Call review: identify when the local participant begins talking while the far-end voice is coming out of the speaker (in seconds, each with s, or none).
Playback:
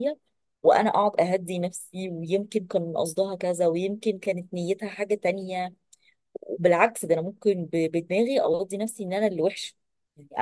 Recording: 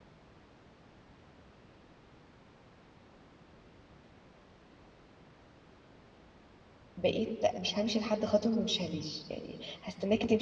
7.0 s